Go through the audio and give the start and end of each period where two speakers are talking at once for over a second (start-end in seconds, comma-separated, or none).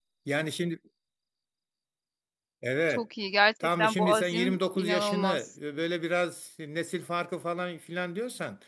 3.8-5.5